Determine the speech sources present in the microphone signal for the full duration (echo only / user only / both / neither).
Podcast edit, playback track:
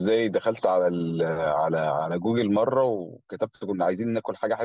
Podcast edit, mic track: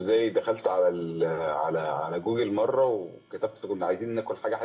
echo only